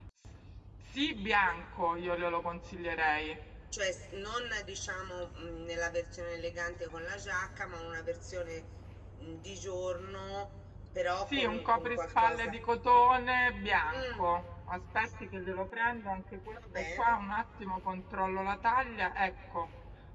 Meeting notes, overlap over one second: present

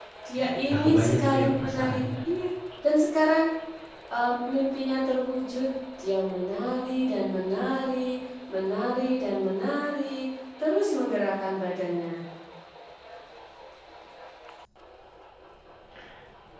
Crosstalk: present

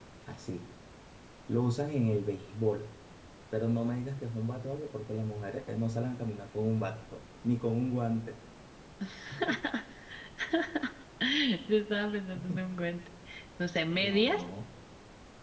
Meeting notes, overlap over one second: none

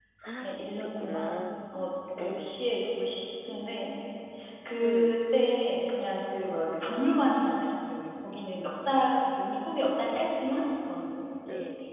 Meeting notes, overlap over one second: present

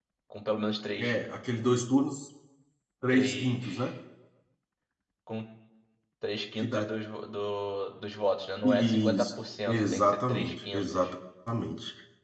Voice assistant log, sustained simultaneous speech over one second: present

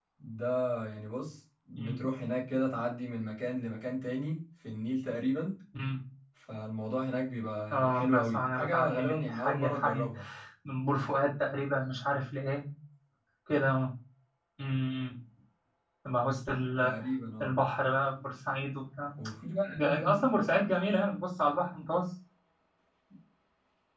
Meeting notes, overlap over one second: present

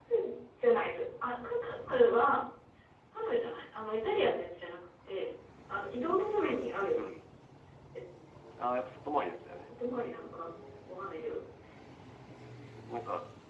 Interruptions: none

